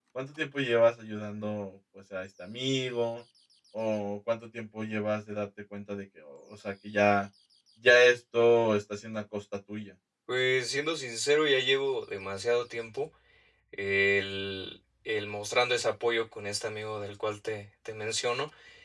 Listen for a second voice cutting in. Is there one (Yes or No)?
No